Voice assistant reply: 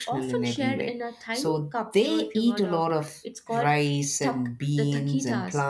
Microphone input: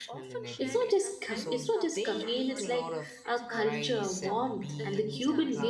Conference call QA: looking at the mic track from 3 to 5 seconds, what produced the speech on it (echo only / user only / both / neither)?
both